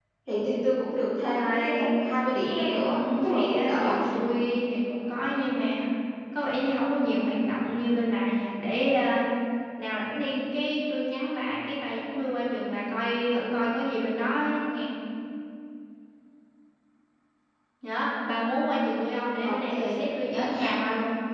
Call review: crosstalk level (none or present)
present